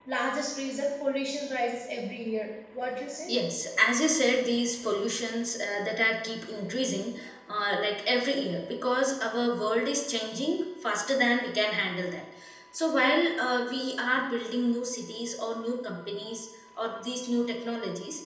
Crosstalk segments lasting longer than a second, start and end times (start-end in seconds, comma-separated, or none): none